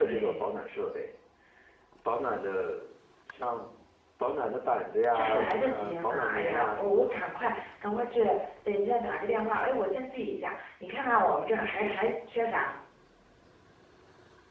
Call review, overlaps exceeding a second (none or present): present